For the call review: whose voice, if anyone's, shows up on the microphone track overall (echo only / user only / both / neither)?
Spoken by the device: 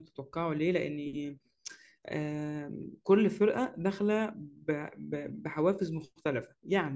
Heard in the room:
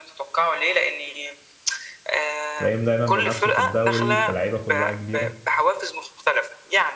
both